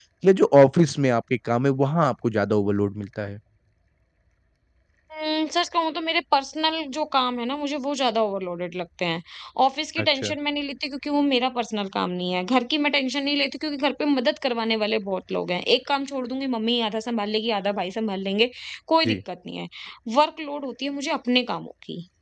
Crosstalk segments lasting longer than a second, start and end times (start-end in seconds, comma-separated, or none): none